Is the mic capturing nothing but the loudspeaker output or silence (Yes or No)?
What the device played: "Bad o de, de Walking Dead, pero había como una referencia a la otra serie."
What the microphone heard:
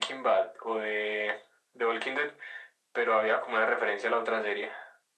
Yes